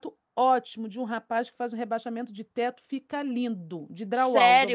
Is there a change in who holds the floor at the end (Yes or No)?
Yes